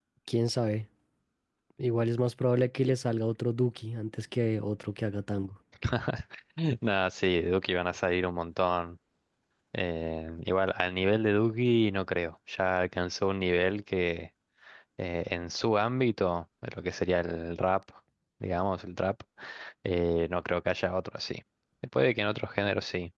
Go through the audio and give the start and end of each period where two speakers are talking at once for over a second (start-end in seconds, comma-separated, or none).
none